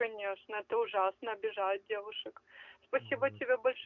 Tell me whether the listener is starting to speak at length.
No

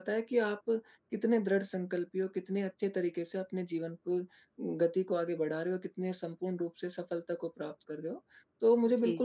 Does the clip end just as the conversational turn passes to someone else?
No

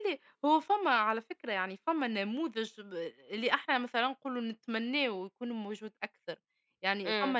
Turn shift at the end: Yes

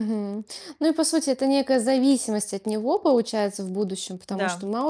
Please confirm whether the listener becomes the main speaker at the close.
No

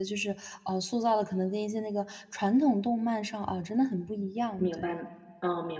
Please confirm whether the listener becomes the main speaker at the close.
Yes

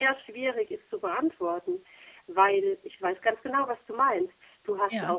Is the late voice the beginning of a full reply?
No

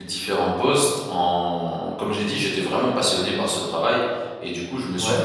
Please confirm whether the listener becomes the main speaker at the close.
No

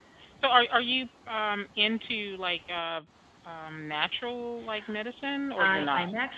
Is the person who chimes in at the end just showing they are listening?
No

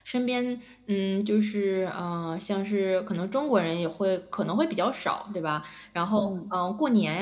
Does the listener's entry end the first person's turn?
No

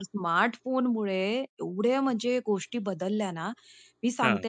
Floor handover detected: No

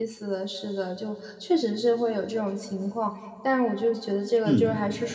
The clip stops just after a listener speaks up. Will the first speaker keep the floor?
Yes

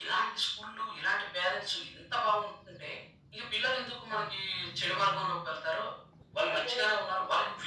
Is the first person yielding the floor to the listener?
No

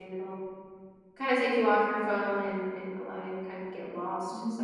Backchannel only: No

